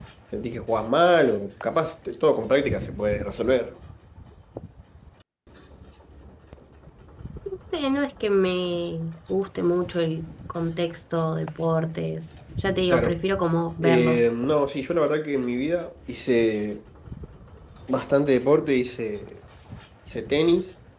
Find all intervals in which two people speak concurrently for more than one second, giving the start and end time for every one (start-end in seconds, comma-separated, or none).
none